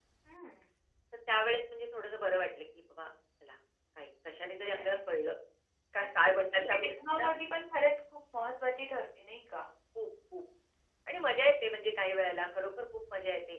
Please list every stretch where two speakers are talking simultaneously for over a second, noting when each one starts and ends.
6.0-7.3

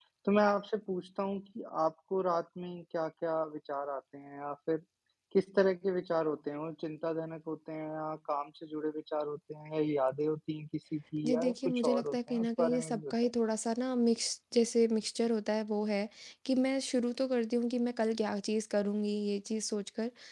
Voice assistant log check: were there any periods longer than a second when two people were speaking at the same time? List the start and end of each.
11.2-13.1

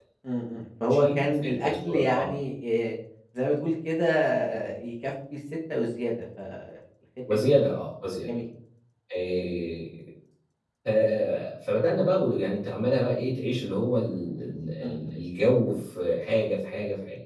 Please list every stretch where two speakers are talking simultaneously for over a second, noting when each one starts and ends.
0.9-2.2

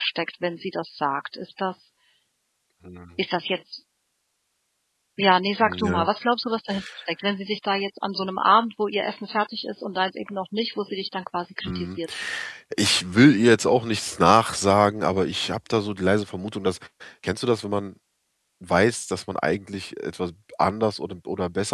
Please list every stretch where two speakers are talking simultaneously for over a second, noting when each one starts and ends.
none

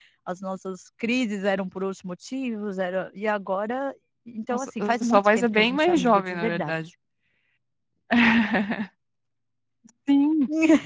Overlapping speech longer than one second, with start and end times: 4.5-6.8

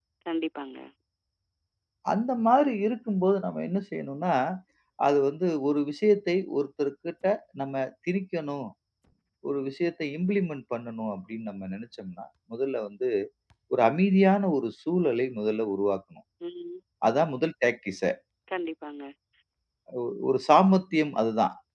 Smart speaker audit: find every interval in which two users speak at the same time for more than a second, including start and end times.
none

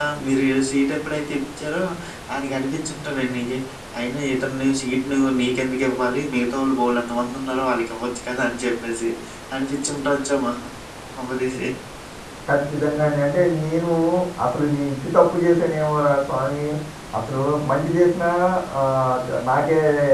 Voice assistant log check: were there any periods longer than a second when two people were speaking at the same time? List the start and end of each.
none

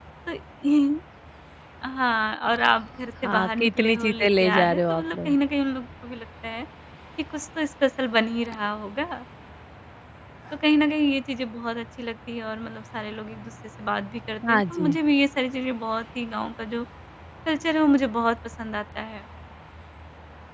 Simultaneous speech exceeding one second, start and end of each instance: 3.2-5.3

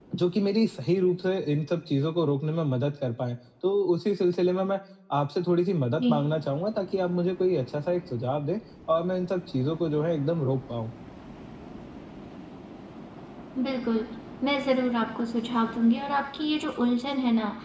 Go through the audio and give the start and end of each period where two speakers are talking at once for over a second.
none

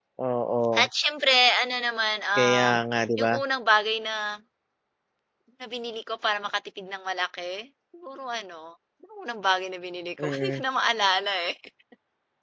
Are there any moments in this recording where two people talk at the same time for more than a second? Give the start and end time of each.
none

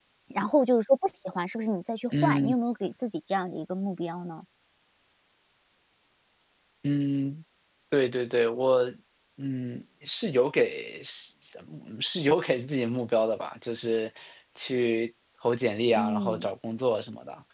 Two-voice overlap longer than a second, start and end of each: none

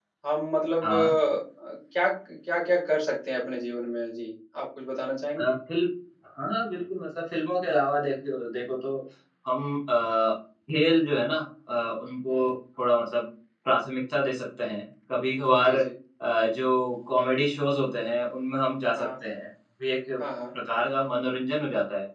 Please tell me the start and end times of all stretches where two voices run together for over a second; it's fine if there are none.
none

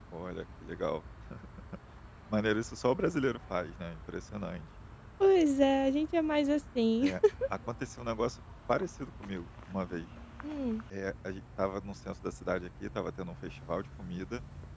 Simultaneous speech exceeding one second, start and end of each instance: none

